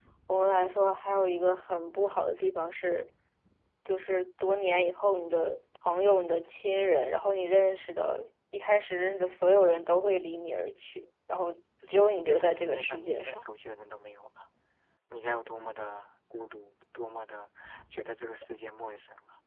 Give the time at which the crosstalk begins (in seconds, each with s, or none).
12.3 s